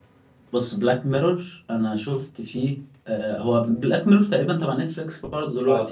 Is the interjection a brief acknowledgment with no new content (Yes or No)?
No